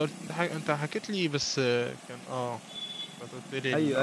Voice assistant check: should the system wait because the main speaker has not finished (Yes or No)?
No